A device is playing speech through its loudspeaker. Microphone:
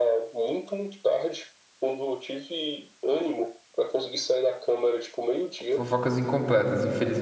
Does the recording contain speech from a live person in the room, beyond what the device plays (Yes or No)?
Yes